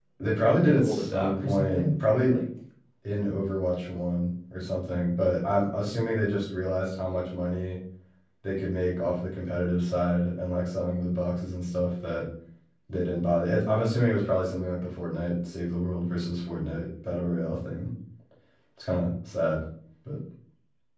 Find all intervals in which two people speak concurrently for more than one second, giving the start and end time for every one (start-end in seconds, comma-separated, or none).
0.6-1.9